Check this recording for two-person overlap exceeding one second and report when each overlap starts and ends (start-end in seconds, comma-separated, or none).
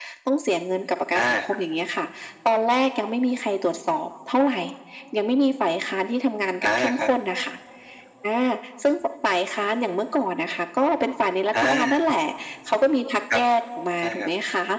none